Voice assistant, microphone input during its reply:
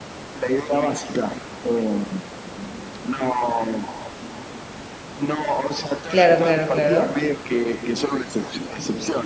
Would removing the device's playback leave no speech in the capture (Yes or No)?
No